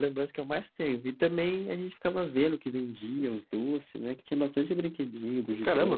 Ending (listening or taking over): taking over